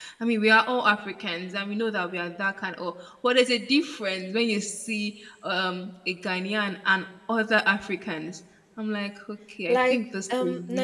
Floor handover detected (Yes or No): Yes